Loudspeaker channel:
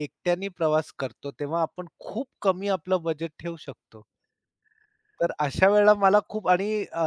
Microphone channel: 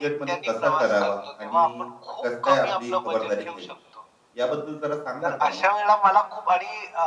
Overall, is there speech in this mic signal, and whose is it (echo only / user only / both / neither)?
both